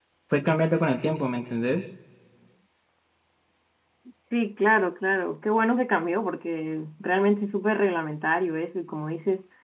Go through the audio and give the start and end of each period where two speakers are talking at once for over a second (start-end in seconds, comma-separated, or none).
none